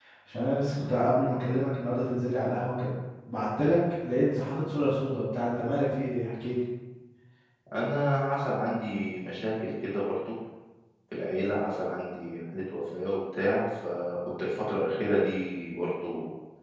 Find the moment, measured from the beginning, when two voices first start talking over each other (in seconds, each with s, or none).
none